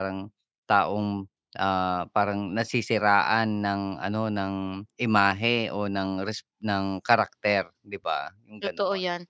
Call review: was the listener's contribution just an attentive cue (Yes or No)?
No